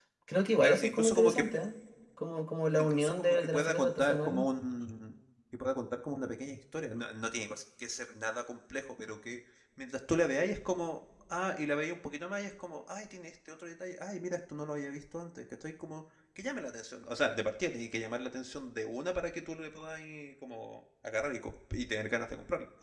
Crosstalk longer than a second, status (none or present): present